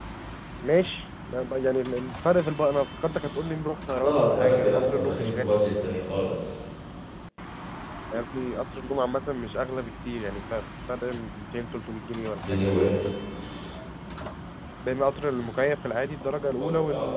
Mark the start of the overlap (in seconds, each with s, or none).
4.0 s